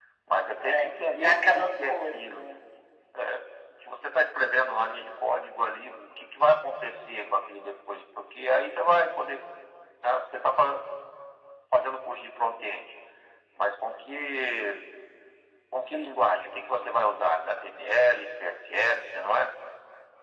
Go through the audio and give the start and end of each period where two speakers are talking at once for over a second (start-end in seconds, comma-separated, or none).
0.7-2.4